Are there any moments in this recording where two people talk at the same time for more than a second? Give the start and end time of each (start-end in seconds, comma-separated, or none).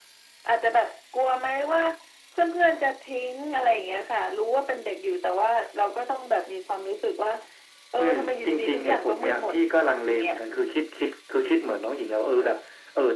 8.0-9.6